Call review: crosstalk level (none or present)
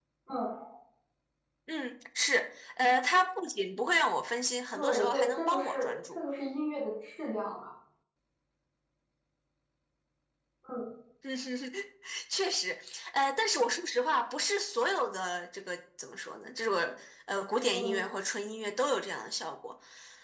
present